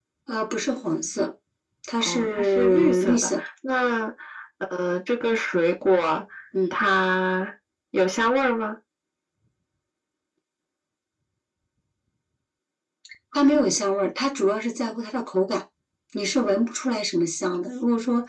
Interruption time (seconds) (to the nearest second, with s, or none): 2 s